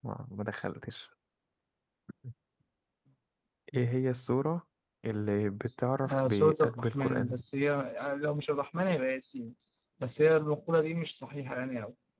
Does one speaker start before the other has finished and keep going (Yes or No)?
Yes